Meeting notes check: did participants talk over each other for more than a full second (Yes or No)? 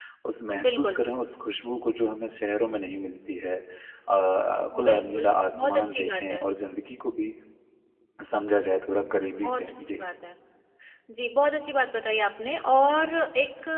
Yes